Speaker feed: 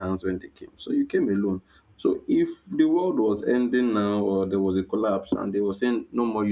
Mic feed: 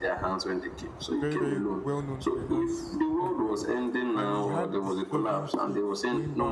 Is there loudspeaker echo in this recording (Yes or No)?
Yes